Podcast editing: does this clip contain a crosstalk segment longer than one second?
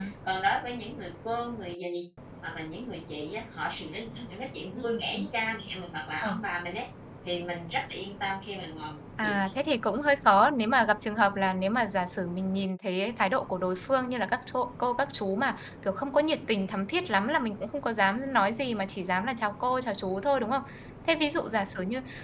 No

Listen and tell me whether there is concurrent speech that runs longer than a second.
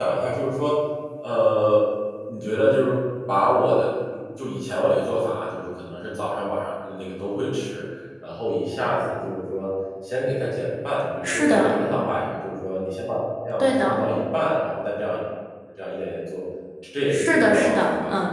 Yes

